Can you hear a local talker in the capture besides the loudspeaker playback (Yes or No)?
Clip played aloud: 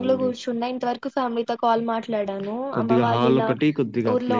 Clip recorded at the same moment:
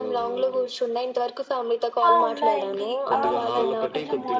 Yes